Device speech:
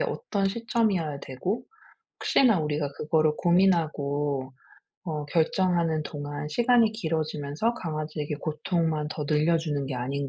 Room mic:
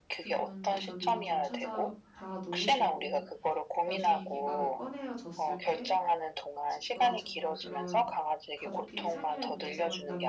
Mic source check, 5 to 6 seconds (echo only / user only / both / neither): both